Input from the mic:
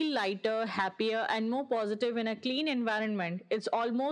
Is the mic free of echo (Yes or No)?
No